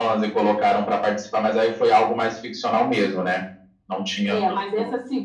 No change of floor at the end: No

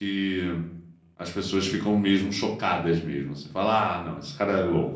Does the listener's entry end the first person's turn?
No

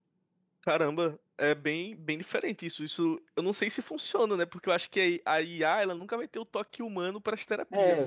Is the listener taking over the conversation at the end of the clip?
Yes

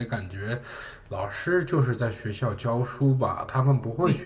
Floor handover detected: Yes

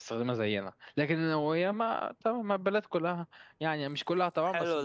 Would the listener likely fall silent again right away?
No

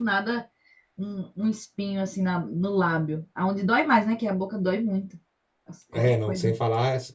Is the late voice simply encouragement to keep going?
No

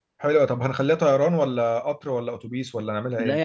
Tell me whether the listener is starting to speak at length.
Yes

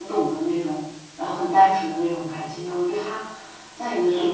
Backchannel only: Yes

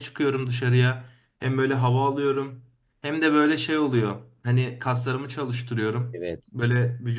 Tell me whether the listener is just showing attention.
Yes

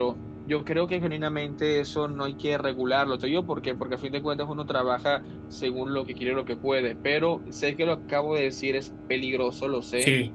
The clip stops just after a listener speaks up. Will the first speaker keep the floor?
Yes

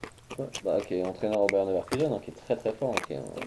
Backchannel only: No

